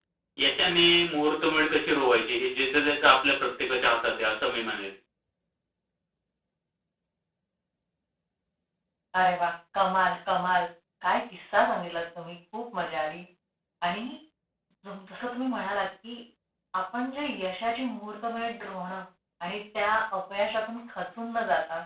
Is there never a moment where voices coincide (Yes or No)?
Yes